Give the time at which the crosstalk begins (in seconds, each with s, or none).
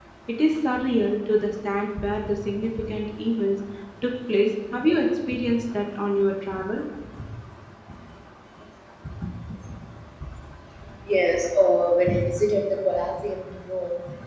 none